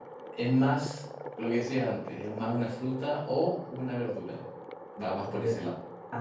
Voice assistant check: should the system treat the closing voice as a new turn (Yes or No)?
Yes